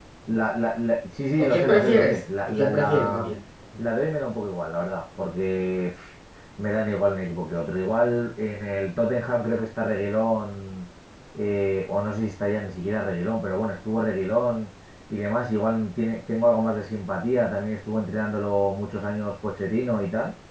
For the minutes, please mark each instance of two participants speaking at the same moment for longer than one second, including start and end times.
1.4-3.3

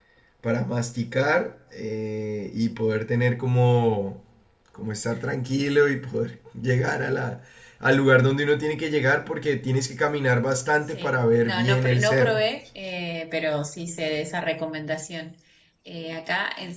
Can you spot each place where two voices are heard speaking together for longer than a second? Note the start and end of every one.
10.9-12.4

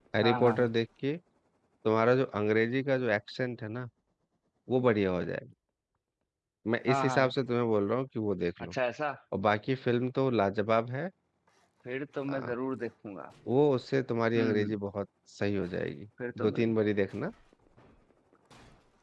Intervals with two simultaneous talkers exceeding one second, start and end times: none

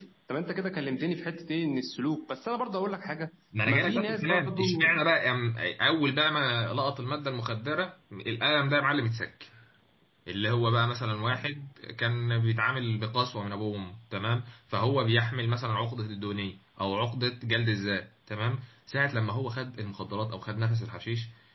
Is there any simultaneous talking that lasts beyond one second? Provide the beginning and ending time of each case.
3.7-4.9

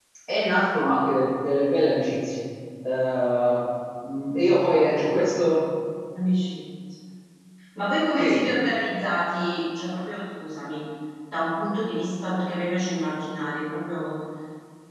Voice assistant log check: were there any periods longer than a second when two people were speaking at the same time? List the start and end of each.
none

